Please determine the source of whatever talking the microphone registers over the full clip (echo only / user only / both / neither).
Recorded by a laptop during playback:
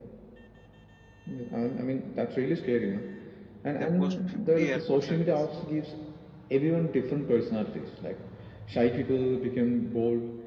both